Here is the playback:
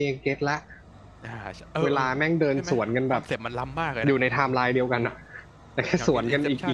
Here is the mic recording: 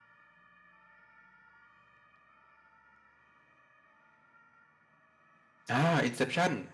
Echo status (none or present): none